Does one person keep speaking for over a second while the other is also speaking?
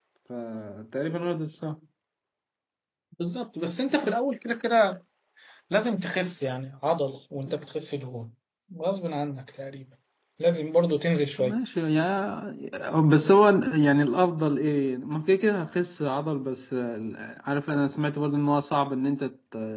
No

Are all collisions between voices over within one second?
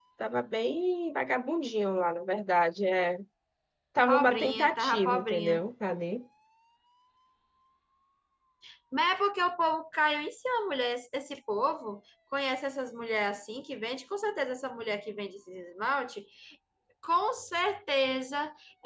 No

